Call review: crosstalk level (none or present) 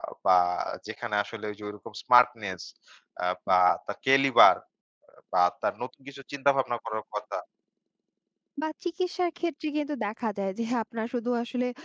none